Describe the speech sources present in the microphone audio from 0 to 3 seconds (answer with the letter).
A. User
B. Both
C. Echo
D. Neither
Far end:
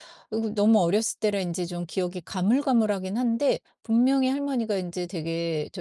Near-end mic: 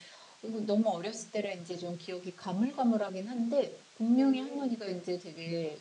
C